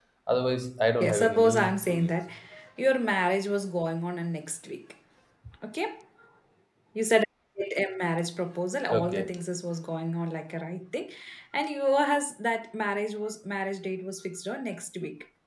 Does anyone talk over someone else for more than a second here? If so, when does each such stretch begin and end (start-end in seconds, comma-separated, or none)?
1.0-2.2